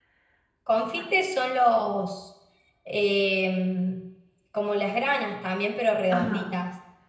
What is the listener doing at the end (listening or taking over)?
taking over